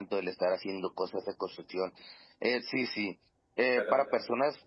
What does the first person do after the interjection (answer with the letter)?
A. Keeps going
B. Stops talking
A